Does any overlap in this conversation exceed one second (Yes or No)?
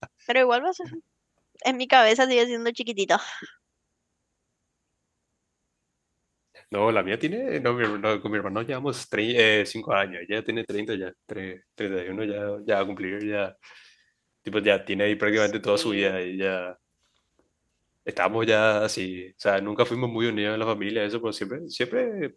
No